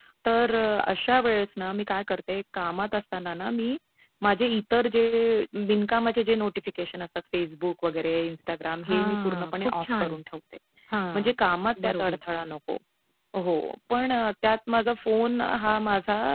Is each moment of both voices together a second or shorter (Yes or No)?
No